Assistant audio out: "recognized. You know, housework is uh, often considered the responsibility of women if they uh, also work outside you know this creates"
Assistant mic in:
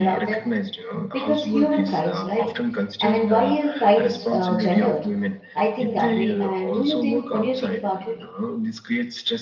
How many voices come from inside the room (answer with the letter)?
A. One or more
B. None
A